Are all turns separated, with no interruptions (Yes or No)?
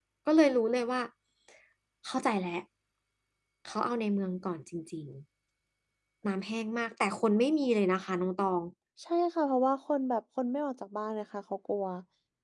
Yes